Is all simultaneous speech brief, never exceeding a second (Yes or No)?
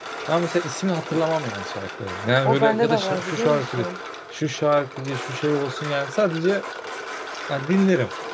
No